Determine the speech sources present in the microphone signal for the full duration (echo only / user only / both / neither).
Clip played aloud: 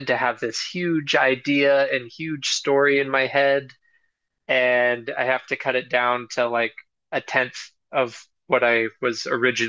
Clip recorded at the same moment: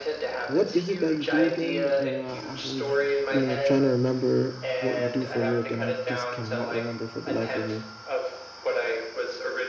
both